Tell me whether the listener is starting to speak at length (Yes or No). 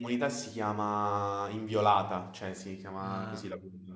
Yes